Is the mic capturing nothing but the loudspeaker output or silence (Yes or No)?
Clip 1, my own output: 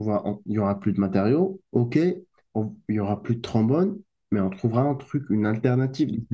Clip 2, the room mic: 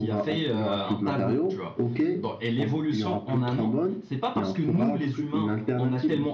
No